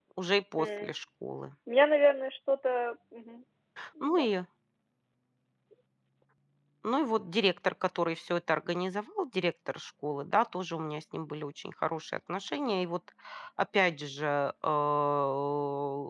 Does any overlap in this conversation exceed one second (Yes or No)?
No